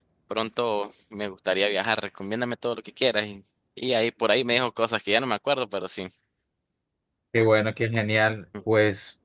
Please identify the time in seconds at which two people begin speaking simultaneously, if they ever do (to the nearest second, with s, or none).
none